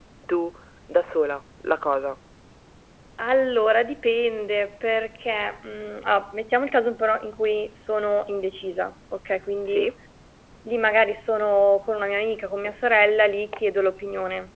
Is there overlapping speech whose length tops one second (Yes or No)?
No